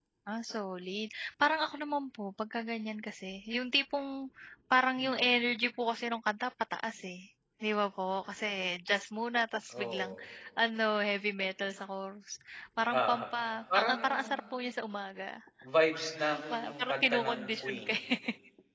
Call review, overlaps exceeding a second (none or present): present